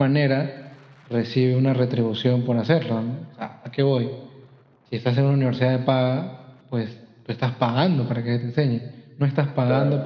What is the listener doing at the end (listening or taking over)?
listening